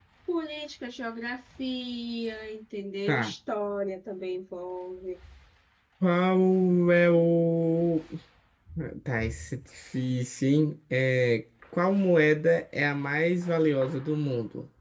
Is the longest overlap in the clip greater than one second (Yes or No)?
No